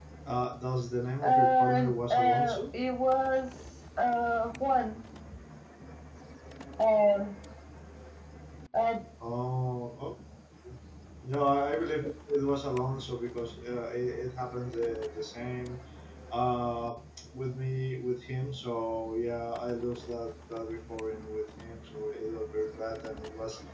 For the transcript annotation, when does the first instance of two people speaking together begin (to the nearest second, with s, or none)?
1 s